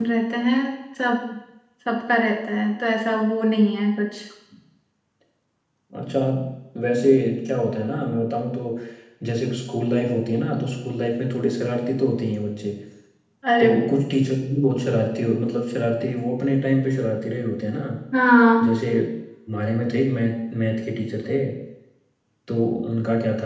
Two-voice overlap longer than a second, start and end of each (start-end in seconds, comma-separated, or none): none